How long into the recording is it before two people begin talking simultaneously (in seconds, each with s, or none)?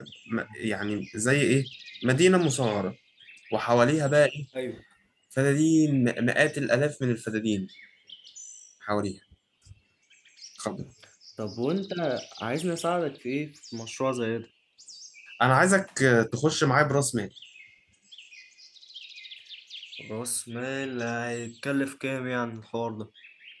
none